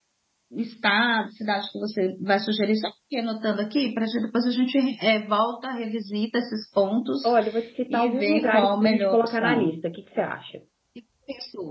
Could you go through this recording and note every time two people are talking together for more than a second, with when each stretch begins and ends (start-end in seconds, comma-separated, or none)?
7.9-9.7